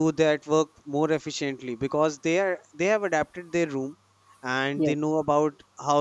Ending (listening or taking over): listening